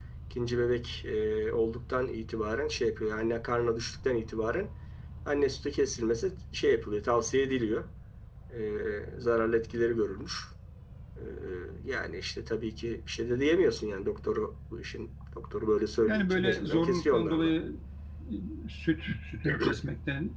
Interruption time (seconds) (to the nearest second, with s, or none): 16 s